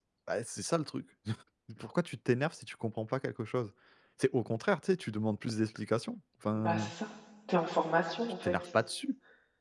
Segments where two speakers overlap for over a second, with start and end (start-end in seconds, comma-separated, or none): none